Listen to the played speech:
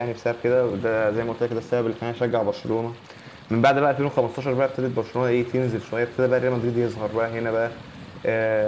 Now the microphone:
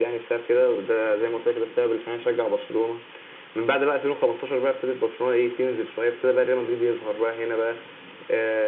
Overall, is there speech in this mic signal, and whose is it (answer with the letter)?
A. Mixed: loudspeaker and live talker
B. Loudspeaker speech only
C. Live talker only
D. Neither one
B